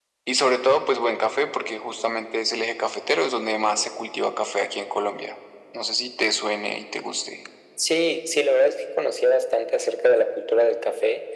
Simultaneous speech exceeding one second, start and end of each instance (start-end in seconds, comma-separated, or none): none